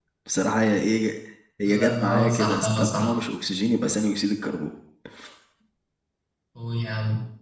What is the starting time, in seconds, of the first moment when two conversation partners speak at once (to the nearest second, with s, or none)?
2 s